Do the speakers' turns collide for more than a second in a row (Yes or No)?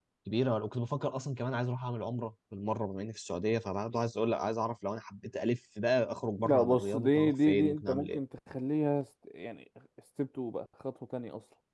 Yes